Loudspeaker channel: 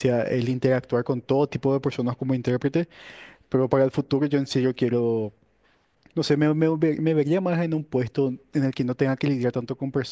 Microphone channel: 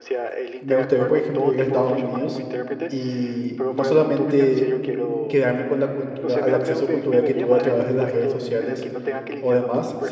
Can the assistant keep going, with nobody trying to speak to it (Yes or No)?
No